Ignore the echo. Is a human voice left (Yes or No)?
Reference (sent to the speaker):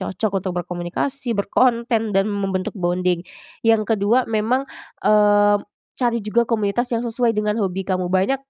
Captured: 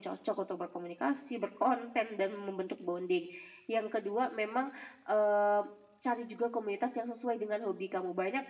No